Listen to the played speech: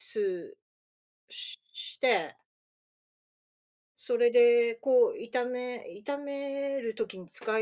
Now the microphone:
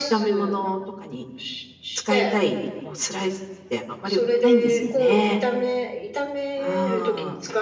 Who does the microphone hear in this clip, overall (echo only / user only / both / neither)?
both